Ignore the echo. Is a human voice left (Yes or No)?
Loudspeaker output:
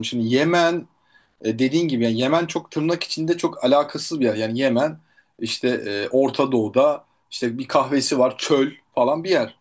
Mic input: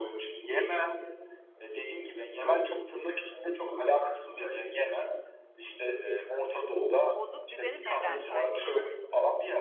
Yes